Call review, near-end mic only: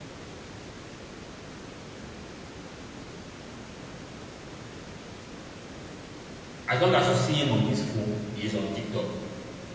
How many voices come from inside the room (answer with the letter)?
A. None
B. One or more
B